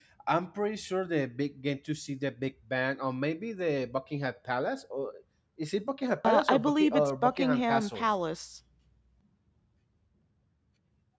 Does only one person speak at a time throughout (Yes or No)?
No